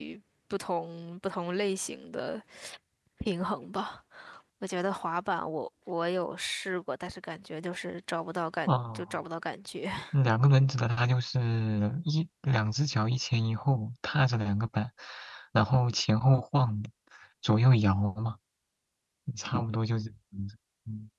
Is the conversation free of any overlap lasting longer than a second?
Yes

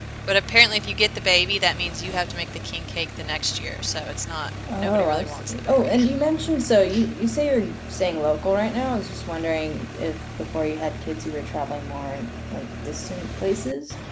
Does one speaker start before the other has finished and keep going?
Yes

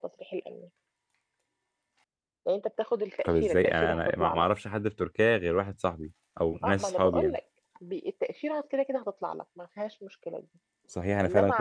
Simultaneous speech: Yes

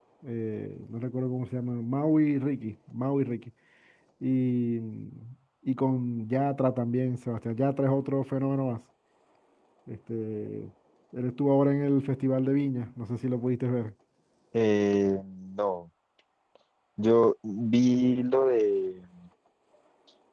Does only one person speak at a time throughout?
Yes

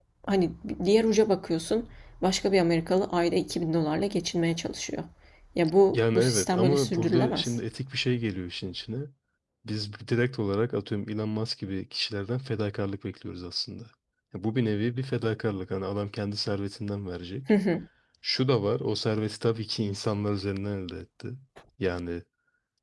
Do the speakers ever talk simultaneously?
Yes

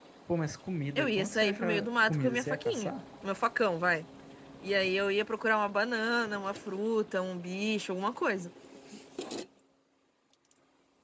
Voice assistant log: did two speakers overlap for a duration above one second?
Yes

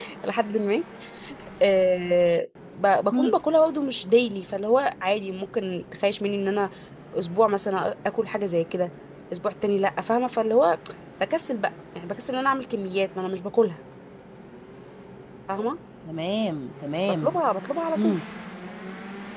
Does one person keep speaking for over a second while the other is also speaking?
No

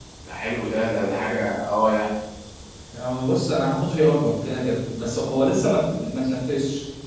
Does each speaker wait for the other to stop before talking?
Yes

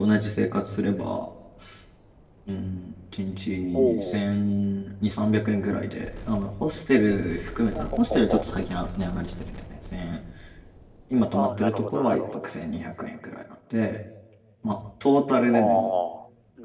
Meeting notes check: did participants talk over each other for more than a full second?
Yes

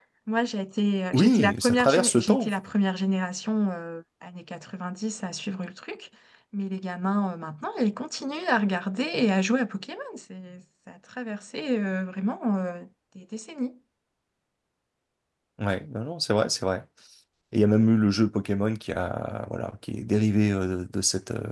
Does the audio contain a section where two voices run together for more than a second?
Yes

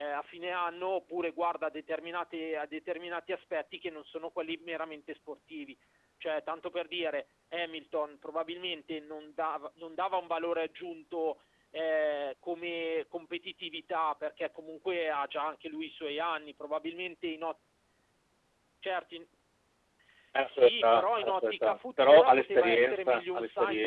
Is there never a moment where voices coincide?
No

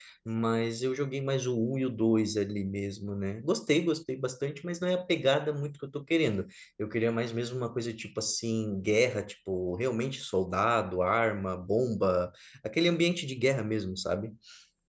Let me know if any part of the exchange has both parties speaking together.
No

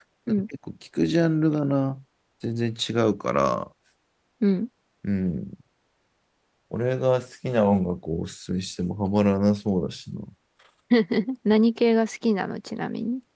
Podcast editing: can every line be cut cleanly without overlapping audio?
Yes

